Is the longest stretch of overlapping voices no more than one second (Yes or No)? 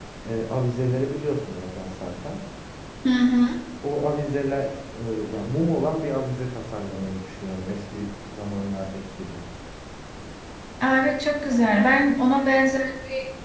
No